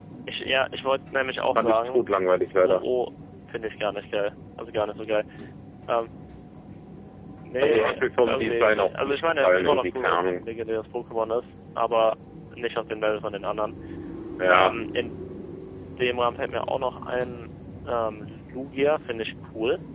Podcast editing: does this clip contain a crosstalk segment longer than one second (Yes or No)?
Yes